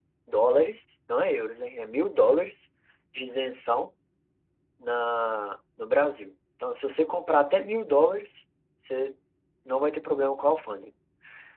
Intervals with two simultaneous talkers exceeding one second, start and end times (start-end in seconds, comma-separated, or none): none